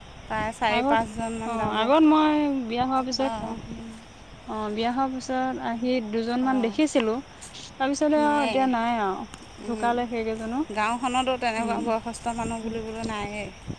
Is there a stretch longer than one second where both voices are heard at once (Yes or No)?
No